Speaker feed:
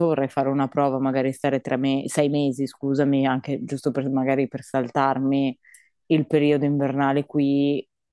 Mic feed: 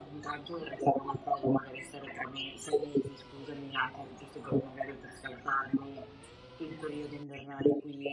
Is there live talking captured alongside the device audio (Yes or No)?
No